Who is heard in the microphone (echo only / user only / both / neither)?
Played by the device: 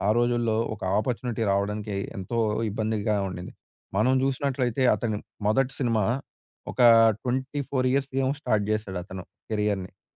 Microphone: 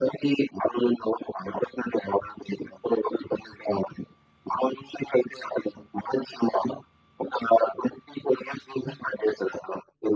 echo only